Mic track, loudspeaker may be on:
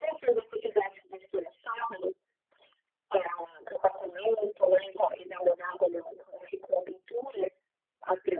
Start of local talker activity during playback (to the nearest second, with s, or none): none